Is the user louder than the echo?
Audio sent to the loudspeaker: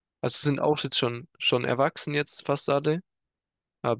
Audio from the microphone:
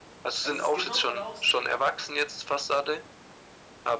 No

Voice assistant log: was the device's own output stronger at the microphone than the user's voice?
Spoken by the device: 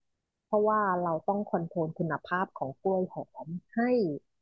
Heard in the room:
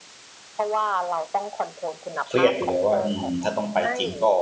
No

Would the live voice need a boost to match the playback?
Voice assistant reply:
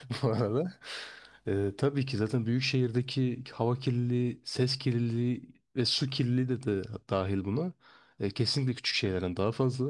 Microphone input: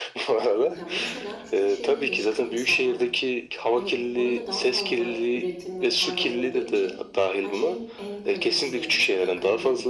Yes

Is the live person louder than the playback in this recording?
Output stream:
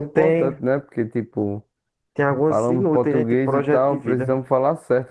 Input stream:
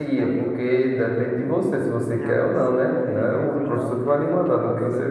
Yes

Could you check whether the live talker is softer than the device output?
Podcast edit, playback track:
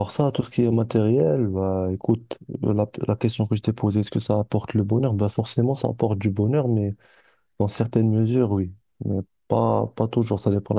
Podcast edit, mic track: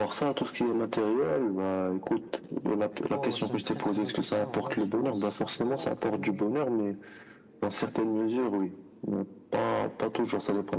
Yes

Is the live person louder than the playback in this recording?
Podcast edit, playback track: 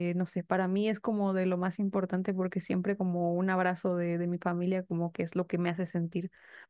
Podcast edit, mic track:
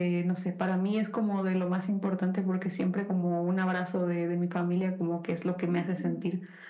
No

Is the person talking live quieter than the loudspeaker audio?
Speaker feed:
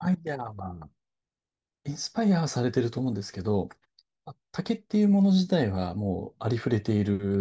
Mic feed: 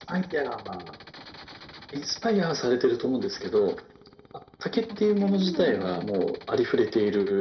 Yes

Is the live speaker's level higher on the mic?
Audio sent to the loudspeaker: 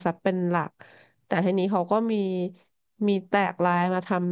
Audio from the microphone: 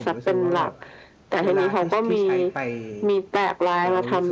No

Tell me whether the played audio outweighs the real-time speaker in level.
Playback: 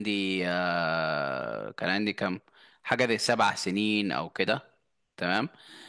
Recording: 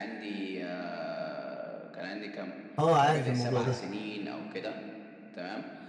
No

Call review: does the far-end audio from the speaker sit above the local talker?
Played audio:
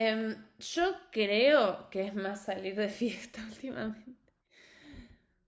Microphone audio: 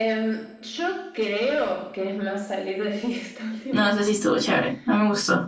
No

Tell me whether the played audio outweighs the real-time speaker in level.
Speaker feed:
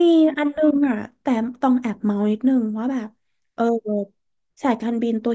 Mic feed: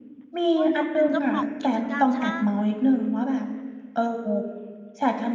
Yes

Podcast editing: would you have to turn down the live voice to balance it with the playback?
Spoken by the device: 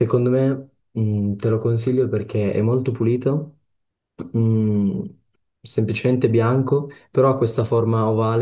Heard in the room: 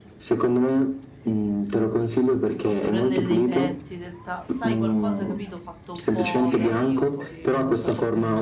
No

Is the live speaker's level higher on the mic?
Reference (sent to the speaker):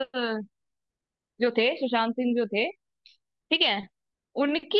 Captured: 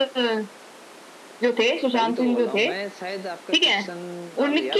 No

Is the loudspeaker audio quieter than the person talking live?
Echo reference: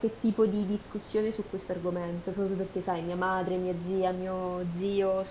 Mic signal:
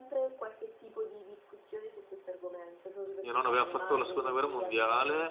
Yes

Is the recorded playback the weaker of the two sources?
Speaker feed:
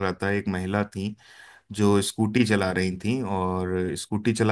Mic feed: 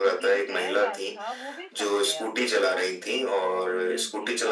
No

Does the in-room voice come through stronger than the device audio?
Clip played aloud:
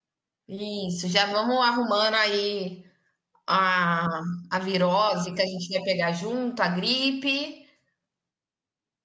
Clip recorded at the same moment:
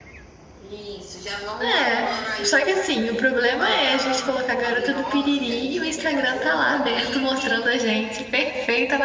Yes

